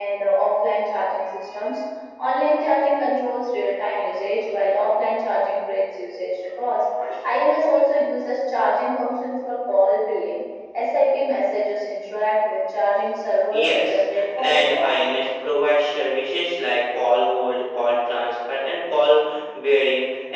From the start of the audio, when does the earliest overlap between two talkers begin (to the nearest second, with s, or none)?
14 s